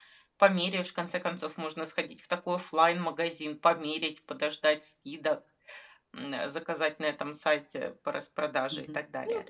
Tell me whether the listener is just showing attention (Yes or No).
No